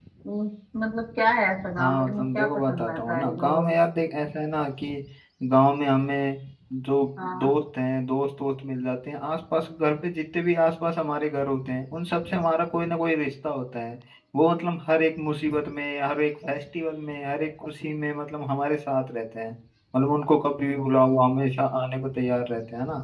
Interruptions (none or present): present